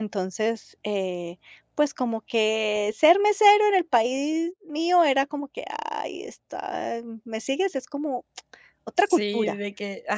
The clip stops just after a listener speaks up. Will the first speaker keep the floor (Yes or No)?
No